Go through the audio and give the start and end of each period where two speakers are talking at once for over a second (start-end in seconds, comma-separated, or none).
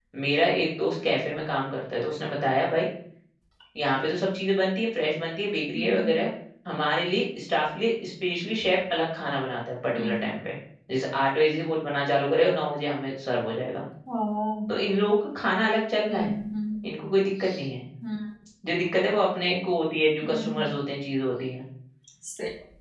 none